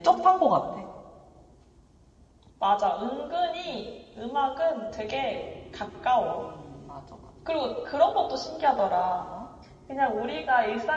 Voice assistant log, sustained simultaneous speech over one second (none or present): none